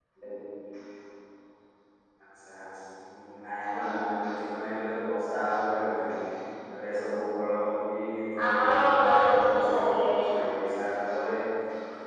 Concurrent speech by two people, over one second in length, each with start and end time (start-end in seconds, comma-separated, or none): 8.4-9.8